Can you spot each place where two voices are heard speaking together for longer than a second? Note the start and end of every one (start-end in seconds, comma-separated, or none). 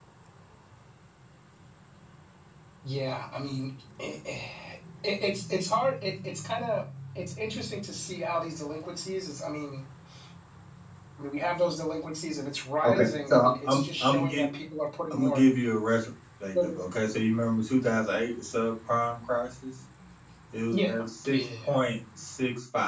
12.8-14.4